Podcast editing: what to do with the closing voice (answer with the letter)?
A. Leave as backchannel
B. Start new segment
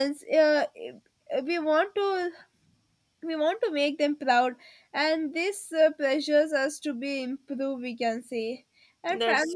A